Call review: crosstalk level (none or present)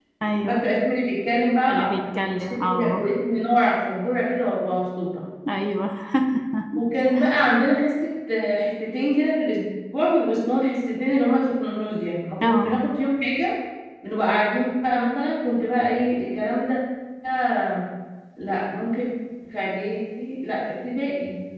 present